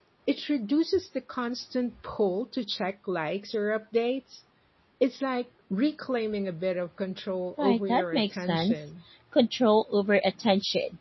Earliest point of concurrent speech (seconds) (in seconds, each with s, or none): 7.6 s